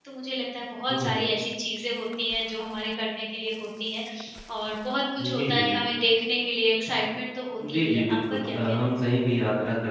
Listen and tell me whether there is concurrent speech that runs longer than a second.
Yes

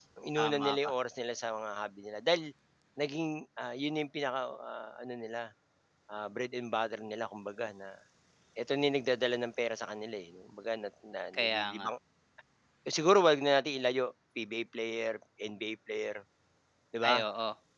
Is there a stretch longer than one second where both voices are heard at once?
No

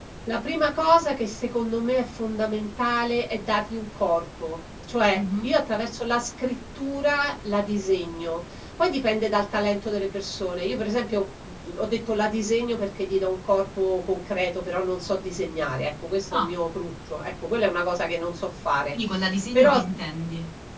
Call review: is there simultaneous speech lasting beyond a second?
No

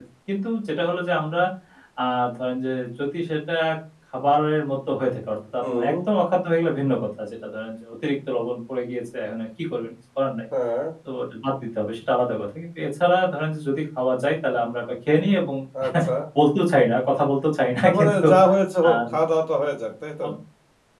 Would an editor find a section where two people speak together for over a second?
No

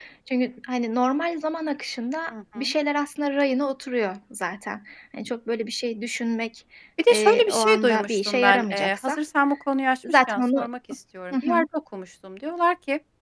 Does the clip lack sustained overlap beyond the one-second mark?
No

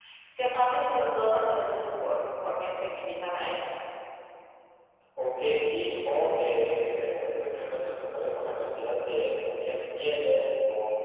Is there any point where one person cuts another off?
No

